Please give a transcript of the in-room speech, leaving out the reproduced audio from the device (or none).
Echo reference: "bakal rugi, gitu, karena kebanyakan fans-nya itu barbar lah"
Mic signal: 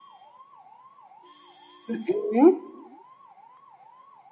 Mhm.